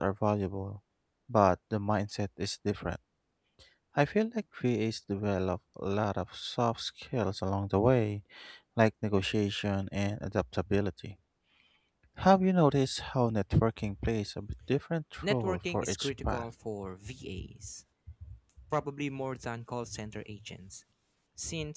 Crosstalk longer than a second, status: present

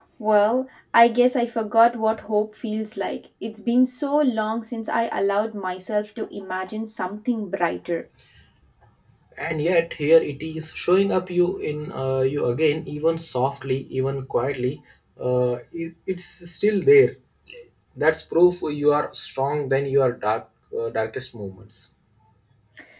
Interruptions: none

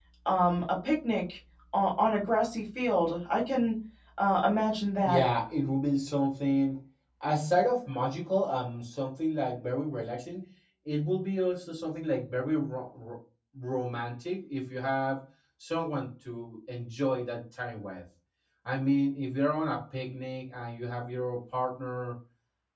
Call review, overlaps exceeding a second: none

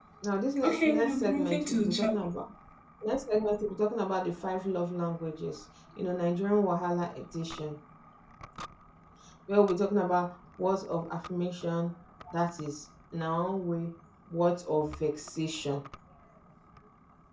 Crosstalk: present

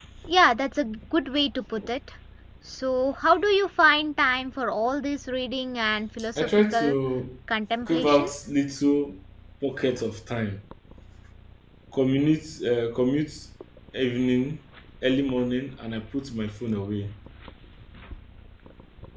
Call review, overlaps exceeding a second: none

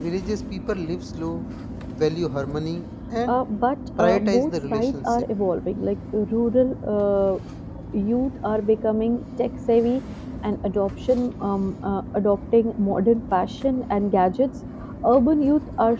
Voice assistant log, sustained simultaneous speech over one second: present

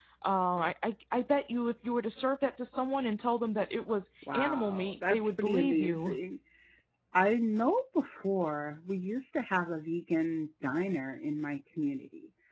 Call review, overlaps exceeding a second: present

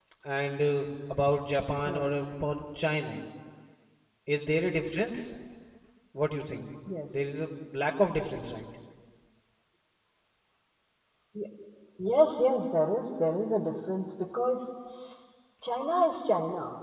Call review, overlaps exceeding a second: none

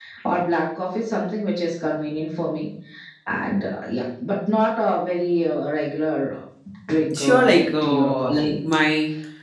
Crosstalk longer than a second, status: present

